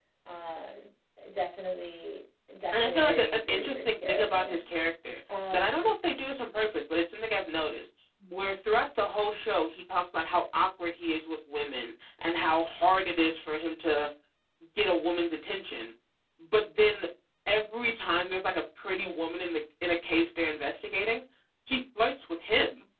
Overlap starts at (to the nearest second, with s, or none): 3 s